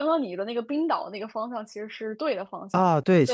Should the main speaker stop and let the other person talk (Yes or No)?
Yes